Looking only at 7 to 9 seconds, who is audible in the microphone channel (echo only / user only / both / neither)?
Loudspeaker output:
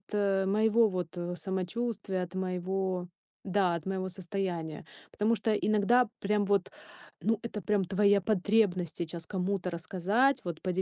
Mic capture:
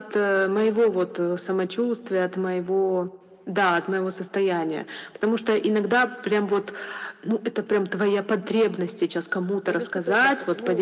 echo only